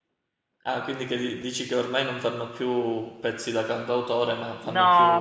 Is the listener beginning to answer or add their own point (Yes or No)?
Yes